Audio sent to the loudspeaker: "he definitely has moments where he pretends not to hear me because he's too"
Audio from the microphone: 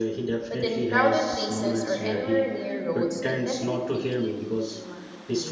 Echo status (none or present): present